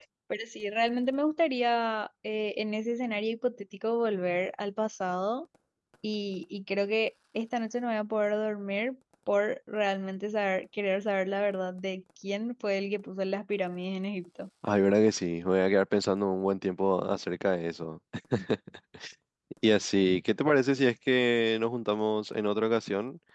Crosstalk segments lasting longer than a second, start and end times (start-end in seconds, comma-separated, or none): none